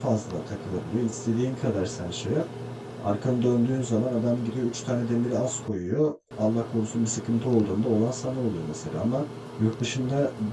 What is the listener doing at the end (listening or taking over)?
listening